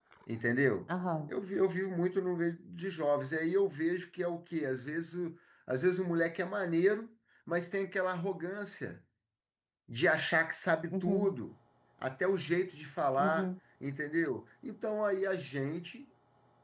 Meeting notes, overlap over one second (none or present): none